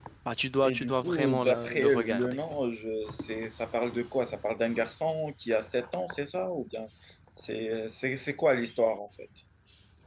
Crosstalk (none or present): present